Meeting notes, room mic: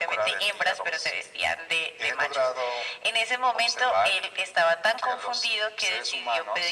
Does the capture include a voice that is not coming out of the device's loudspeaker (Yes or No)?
No